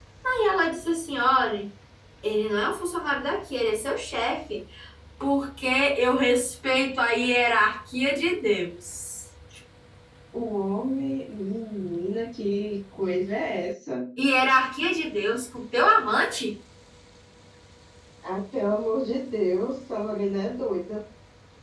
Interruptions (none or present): none